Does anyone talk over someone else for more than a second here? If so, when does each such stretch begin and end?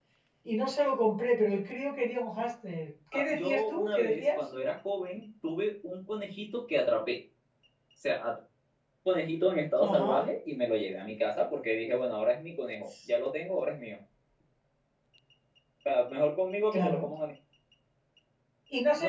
3.1-4.4

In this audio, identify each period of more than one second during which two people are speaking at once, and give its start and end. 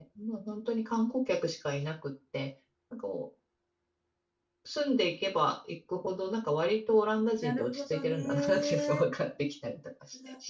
7.3-9.0

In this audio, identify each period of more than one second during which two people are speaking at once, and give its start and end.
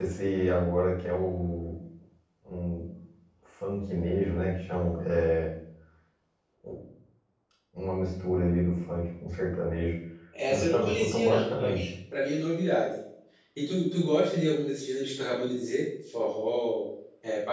10.5-11.9

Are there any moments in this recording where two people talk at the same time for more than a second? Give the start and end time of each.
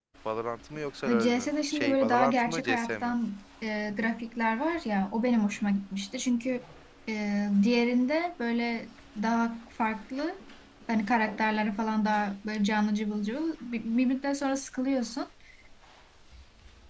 1.2-3.1

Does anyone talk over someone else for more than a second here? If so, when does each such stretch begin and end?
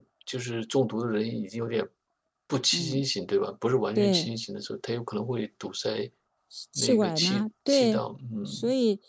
6.8-8.0

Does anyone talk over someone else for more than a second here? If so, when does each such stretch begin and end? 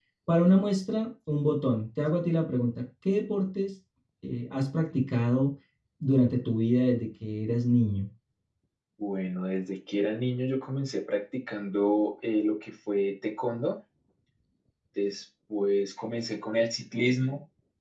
none

